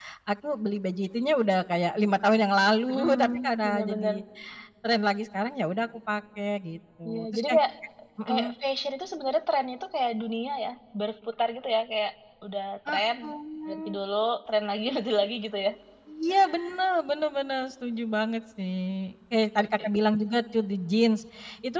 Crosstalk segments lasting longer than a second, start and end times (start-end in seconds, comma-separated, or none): 2.9-4.2